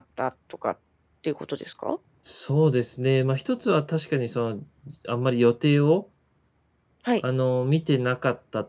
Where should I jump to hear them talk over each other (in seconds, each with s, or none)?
none